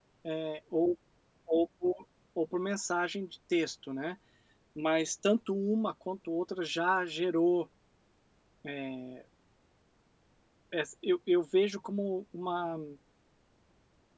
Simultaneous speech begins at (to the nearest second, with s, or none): none